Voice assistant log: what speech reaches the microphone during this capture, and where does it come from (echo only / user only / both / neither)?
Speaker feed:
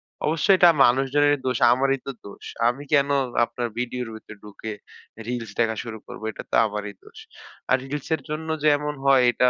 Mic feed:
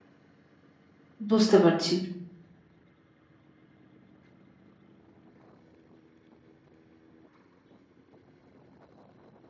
user only